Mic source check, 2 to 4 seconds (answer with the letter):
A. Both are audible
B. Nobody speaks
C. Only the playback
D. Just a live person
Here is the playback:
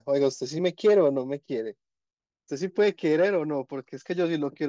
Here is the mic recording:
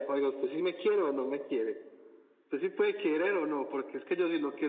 C